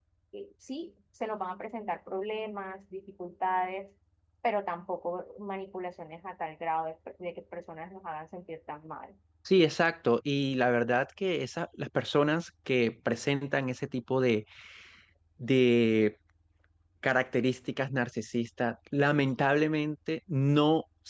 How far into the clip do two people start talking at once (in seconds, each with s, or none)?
none